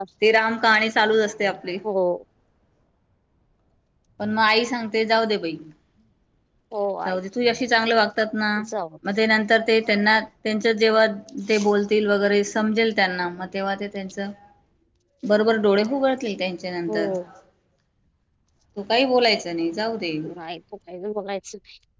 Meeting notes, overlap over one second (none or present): none